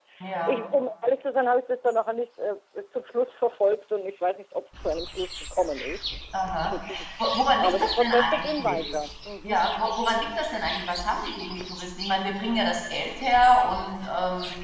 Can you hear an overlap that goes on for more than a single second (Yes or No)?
Yes